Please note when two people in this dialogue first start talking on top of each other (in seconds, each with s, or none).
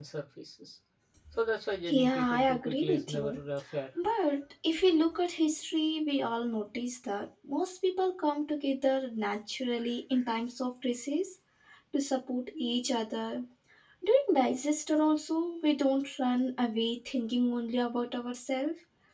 1.9 s